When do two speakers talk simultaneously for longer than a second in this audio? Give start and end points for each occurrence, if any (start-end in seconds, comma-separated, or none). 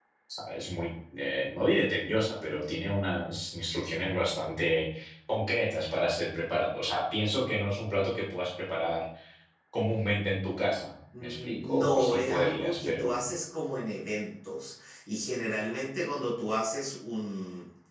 11.2-13.3